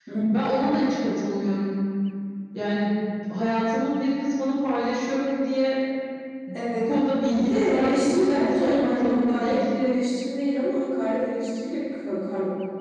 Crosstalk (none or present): present